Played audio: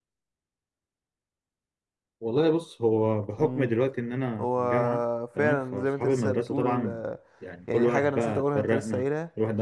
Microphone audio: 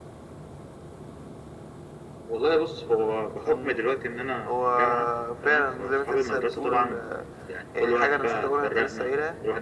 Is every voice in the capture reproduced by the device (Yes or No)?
Yes